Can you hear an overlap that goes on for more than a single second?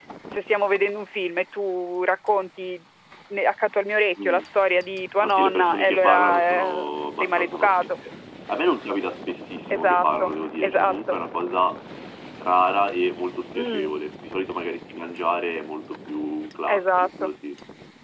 Yes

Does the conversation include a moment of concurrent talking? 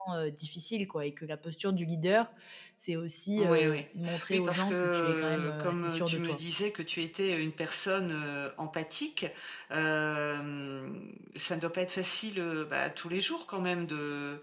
Yes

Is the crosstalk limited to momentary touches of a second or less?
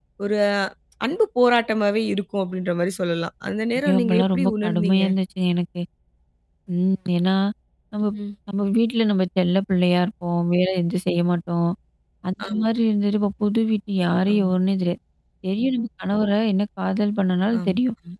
No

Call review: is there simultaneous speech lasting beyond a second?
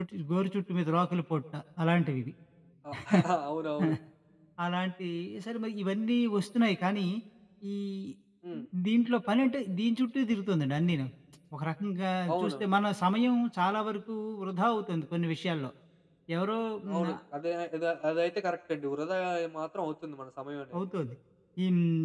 No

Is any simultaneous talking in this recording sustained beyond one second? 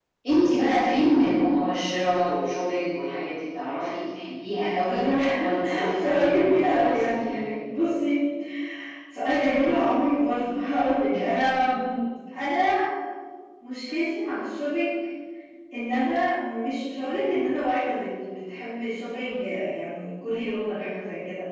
Yes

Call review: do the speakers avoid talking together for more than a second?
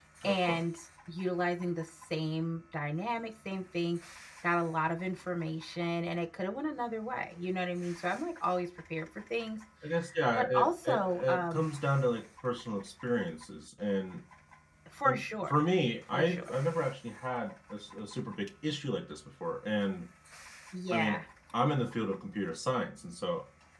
No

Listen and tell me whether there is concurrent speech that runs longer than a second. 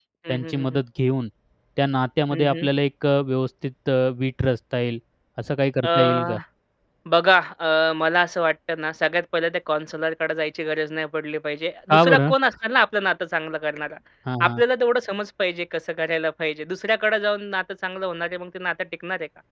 No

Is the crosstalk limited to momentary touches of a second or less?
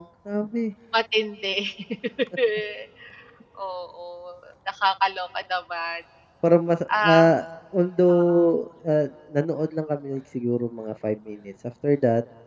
Yes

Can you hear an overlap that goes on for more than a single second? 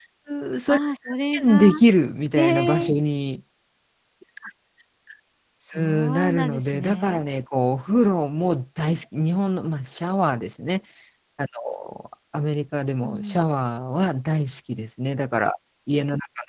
Yes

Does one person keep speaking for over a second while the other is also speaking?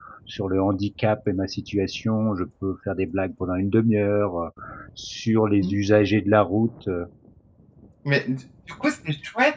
No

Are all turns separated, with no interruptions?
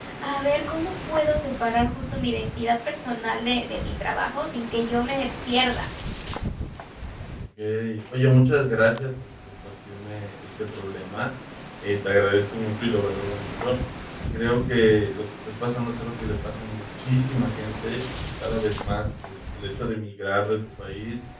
Yes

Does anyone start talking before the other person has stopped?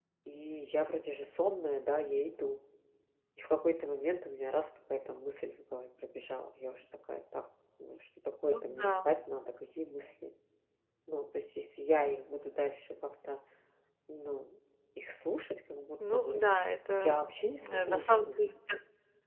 Yes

